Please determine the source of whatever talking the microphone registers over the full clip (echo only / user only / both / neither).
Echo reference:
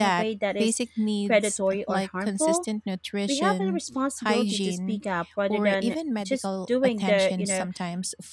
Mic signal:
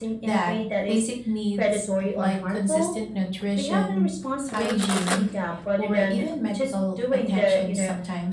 echo only